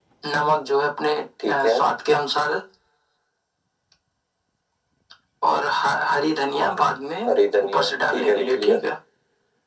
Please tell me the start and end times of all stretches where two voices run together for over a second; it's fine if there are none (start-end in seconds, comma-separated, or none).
7.3-8.8